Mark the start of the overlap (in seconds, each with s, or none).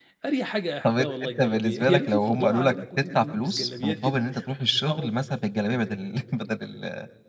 0.8 s